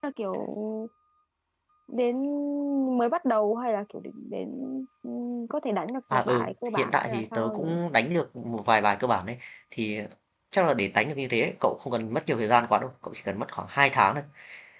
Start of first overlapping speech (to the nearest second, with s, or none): 6 s